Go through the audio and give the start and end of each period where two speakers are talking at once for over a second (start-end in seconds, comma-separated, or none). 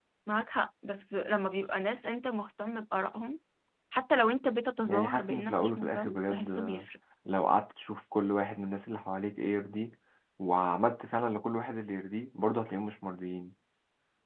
4.9-6.9